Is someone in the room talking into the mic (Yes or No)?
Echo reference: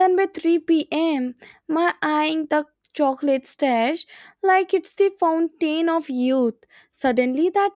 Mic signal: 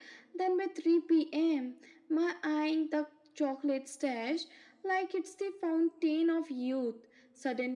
No